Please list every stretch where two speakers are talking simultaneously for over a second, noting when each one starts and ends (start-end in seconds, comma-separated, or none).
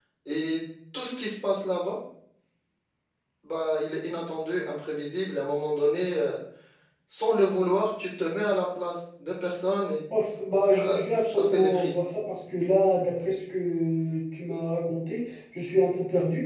10.7-12.0